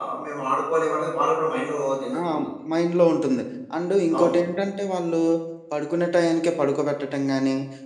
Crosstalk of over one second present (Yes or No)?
No